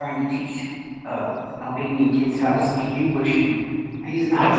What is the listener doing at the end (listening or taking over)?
listening